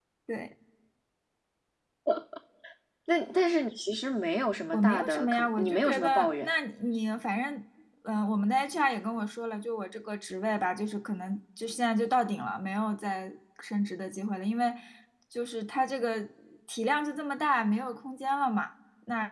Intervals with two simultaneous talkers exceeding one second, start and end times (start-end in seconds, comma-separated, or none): 4.7-6.5